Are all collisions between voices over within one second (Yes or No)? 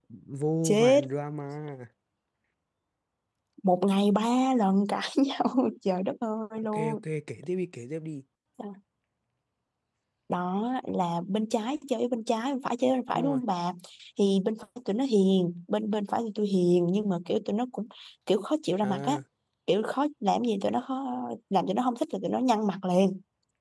Yes